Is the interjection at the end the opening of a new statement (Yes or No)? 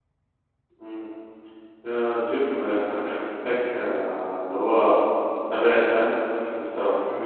Yes